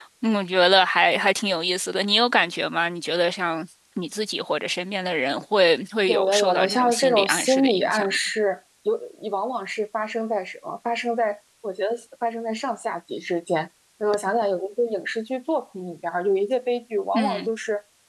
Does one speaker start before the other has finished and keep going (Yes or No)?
Yes